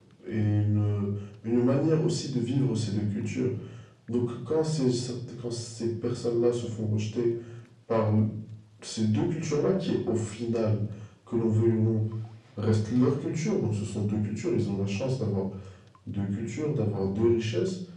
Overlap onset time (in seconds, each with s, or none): none